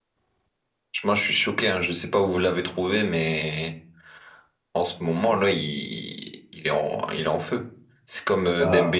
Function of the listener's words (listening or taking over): listening